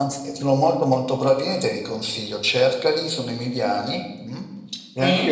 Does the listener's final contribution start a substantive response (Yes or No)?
No